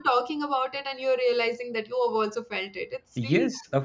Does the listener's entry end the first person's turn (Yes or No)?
Yes